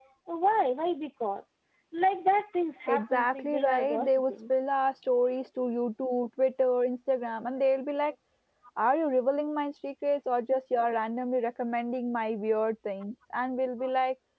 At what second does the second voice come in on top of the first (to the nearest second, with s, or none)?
3 s